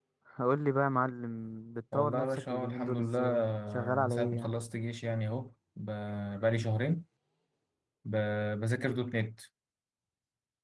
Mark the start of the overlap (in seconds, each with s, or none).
1.9 s